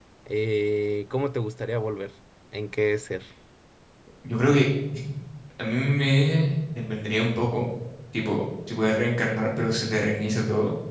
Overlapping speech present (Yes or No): No